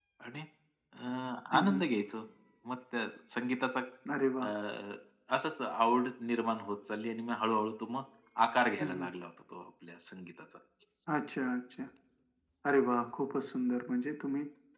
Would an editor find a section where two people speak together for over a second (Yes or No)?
No